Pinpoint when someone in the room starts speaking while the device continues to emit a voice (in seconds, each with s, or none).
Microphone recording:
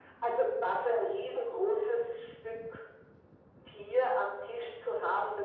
none